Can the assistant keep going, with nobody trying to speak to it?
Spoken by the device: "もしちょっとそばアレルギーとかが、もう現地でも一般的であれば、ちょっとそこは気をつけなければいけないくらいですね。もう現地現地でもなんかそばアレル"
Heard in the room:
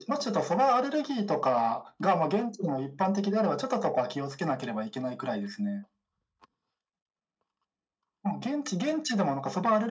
Yes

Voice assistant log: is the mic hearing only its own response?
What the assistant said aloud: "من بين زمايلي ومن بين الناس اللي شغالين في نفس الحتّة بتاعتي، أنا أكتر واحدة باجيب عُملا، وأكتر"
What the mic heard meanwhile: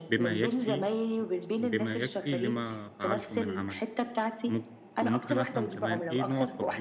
No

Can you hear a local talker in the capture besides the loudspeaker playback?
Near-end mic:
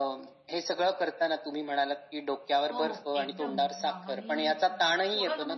Yes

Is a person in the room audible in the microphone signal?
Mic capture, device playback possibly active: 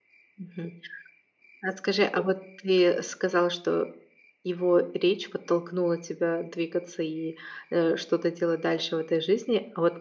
Yes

